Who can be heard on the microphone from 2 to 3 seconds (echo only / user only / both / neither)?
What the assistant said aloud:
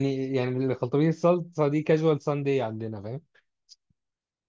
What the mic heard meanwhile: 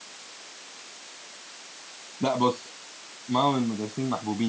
user only